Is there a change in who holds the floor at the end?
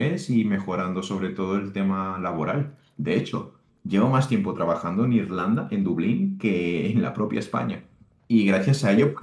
No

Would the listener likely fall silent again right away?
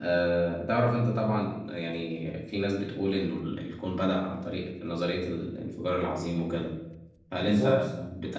Yes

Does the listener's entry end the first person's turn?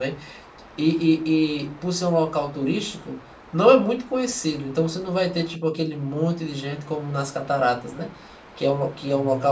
No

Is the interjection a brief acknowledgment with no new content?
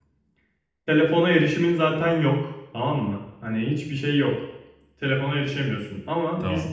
Yes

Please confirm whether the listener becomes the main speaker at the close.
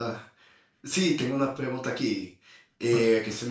No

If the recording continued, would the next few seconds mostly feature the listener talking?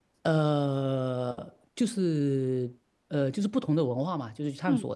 No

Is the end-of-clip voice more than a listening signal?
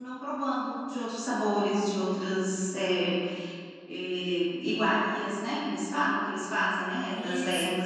Yes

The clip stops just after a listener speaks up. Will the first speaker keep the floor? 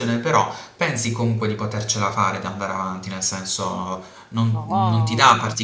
Yes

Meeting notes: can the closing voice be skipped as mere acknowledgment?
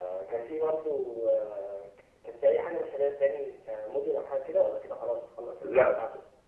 No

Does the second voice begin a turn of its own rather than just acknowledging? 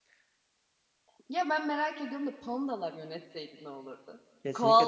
Yes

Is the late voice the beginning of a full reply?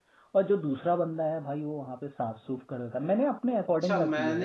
Yes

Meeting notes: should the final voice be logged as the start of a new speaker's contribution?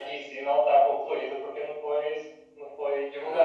Yes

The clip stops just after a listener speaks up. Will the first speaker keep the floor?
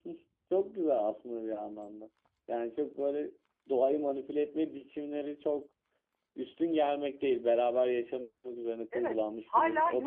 No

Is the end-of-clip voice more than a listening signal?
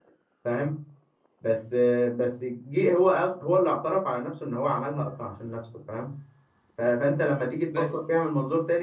No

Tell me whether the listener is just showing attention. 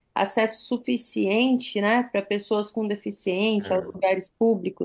Yes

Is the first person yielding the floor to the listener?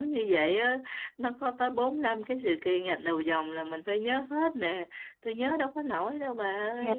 Yes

